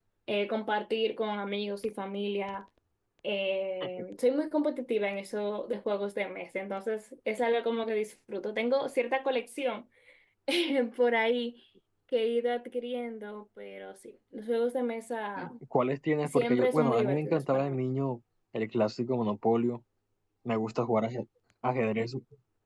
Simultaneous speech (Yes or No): Yes